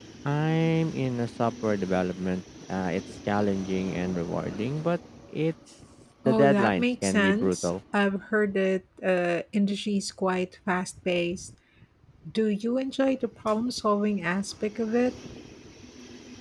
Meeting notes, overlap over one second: present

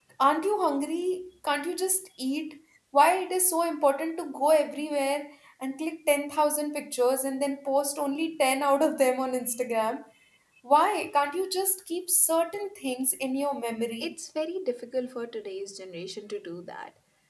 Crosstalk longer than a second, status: none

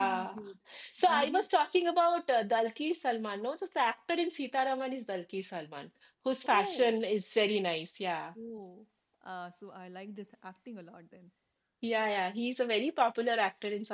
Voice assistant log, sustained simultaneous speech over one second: none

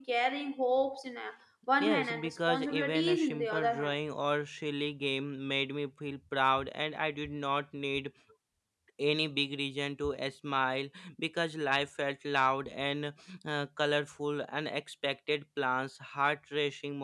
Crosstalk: present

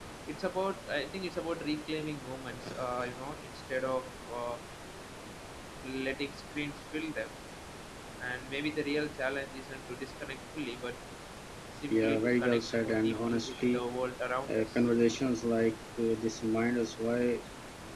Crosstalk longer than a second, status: present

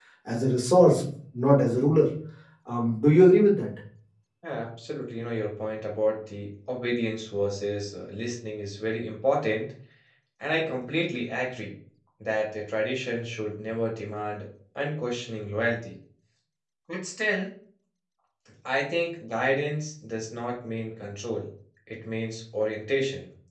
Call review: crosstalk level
none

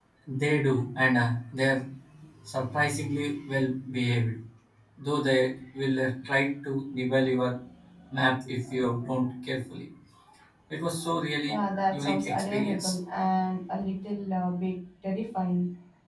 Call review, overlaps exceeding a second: present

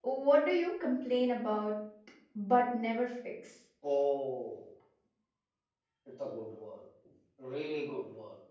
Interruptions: none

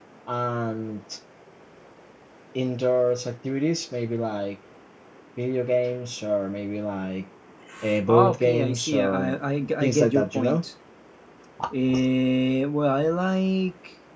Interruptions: present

